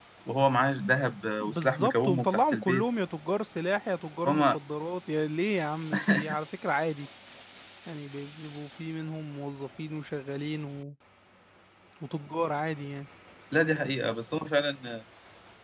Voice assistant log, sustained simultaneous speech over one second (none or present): present